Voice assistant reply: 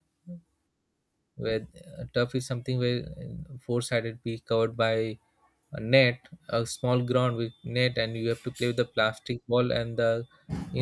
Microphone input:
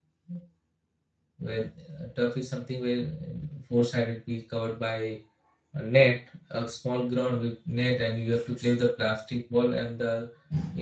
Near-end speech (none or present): none